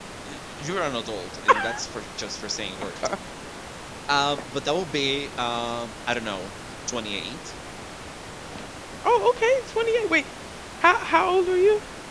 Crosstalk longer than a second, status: none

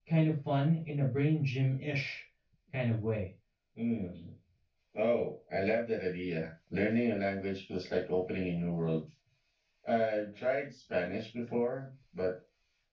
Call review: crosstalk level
none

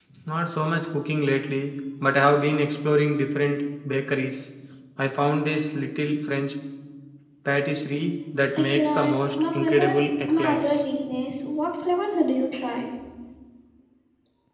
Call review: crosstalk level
present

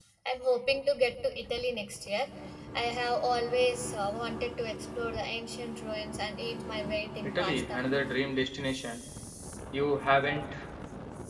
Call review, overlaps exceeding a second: none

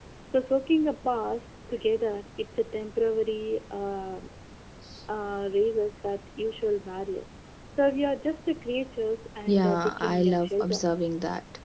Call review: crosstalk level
present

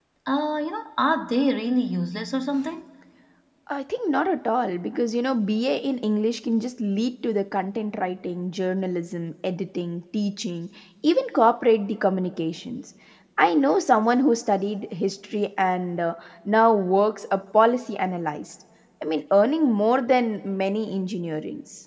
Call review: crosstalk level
none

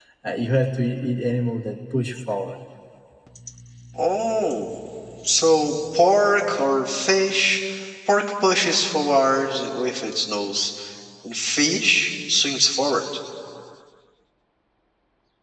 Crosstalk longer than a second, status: none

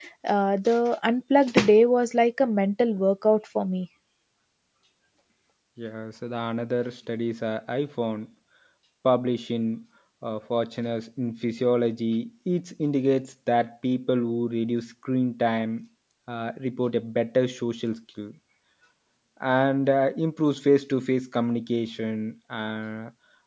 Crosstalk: none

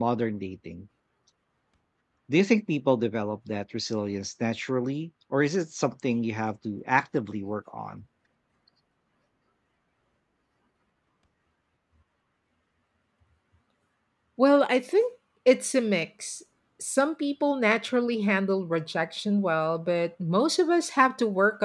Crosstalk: none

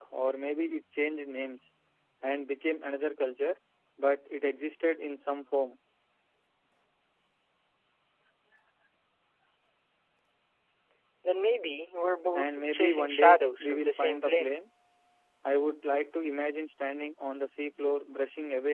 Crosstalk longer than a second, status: present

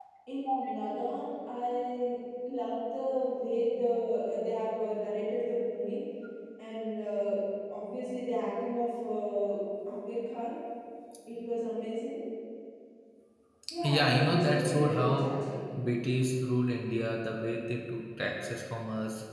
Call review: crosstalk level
present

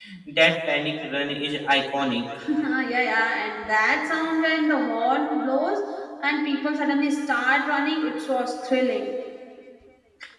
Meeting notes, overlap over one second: none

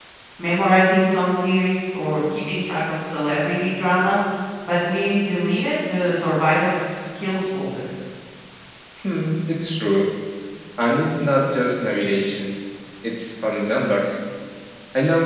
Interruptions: none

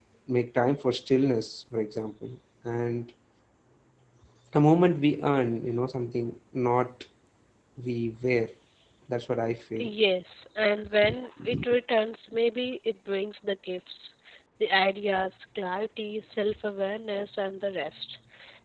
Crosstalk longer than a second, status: none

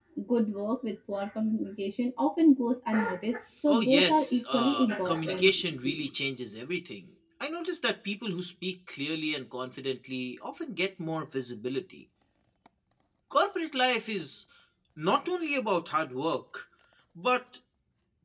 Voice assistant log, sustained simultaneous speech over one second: present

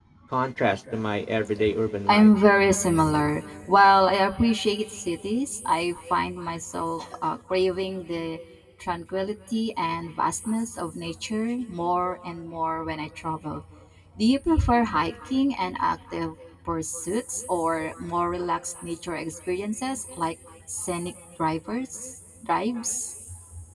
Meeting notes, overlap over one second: none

